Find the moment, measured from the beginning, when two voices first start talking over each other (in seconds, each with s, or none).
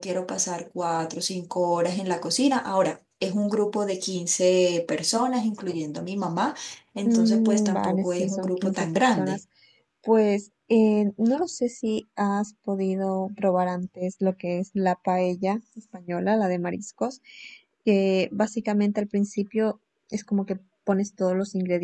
7.0 s